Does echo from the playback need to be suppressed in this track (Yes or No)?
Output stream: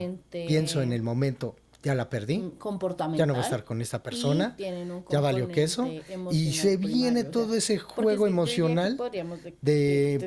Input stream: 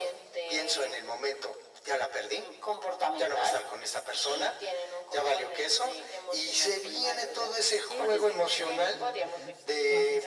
Yes